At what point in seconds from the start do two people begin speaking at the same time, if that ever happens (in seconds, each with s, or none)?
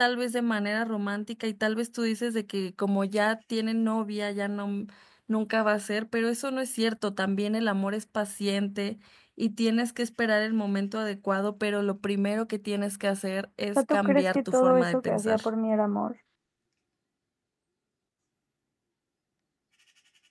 13.8 s